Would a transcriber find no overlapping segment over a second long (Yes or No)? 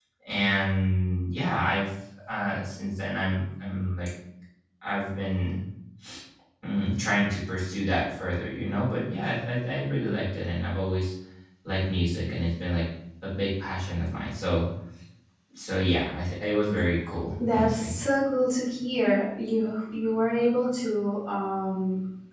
Yes